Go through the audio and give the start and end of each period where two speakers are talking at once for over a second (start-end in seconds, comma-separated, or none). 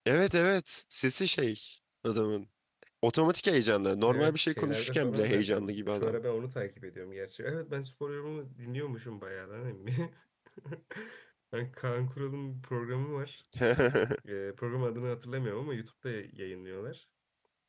4.1-6.2